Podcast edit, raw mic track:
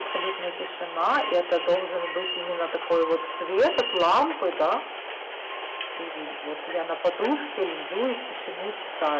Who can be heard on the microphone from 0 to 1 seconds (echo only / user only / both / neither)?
echo only